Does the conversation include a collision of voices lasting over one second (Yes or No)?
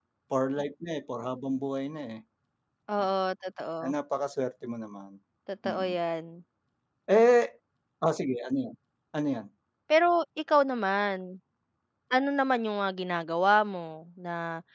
No